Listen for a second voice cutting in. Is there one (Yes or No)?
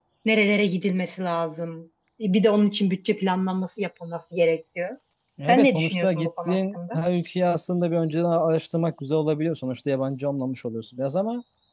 Yes